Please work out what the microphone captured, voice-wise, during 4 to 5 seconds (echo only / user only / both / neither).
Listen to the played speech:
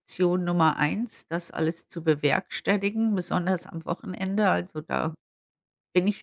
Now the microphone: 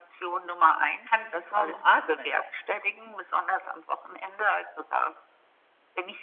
echo only